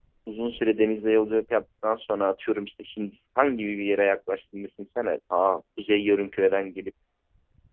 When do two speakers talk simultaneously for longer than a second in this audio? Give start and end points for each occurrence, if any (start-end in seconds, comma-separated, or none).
none